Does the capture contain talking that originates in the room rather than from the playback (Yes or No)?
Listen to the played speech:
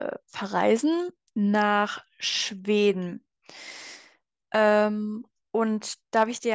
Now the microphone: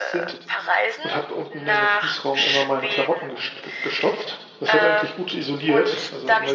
Yes